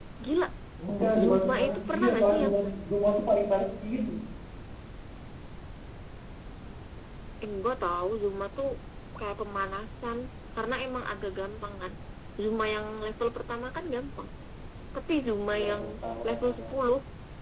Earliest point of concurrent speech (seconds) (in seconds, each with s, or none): 1.2 s